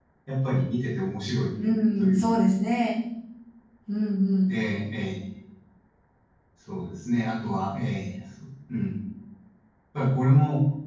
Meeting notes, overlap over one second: none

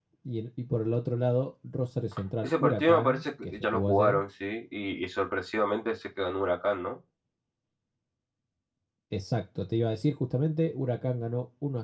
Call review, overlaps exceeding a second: present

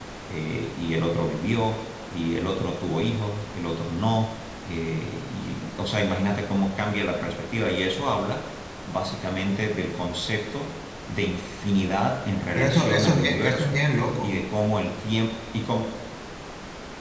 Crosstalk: present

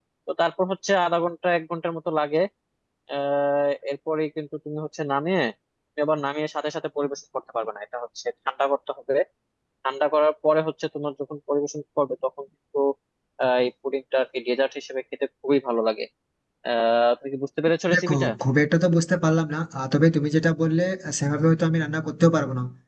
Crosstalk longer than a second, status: none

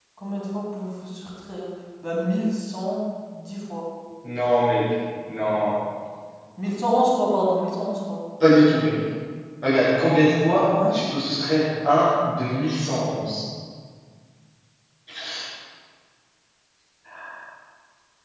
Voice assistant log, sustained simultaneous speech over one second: none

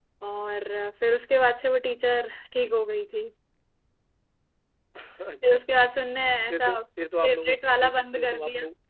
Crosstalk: present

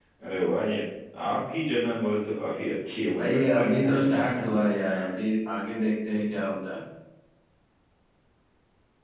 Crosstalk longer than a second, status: present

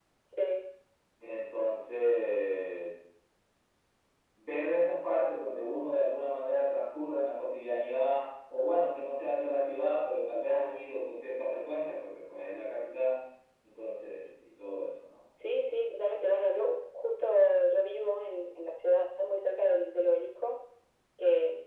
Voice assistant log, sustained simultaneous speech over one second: none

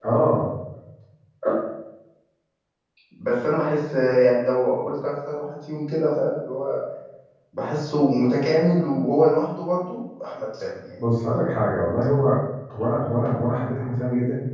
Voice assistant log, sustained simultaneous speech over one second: none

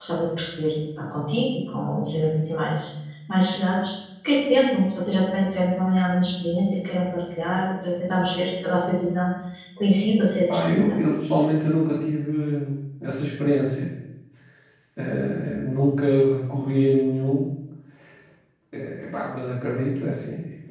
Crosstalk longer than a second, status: none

